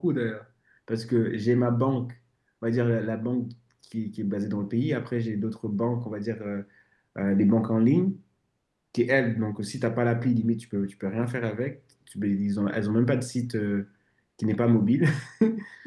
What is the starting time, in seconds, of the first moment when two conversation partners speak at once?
none

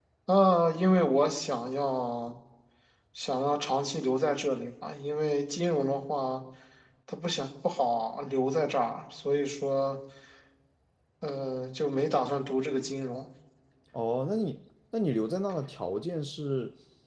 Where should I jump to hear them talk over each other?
none

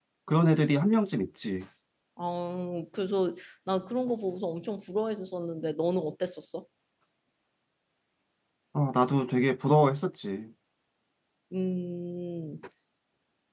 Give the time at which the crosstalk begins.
none

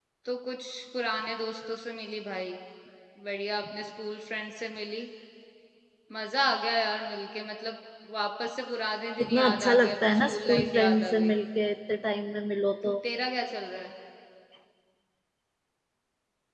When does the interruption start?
9.2 s

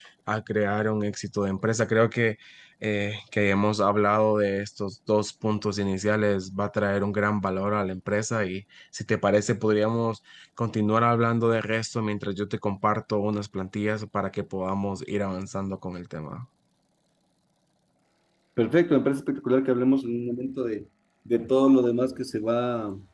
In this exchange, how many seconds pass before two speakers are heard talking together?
none

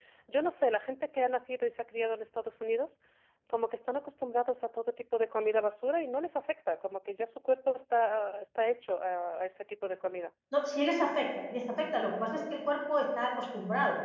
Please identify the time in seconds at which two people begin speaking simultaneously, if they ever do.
none

